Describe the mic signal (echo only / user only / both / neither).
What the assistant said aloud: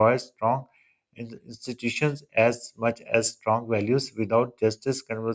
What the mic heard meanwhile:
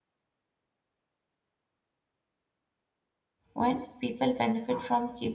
user only